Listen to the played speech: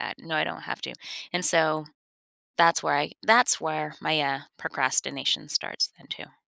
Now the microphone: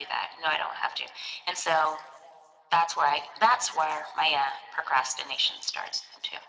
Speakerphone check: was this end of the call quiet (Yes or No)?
Yes